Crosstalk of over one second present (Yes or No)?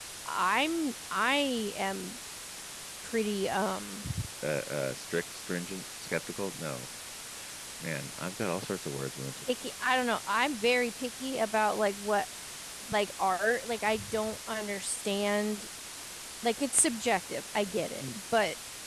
No